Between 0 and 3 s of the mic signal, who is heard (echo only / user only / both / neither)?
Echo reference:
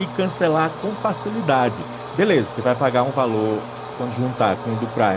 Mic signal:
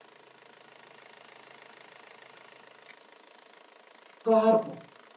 neither